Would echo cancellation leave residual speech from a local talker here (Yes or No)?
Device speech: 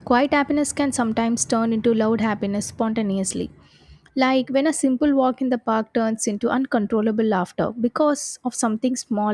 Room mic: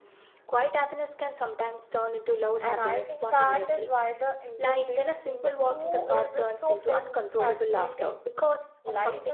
Yes